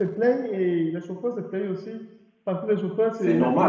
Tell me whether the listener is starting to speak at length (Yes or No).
No